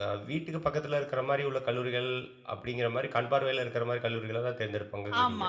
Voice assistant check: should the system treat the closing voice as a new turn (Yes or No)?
Yes